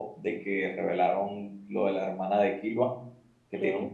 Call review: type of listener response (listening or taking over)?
listening